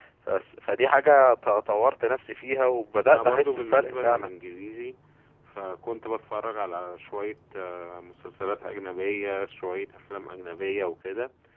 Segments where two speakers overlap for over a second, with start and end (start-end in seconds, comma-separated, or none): 3.0-4.3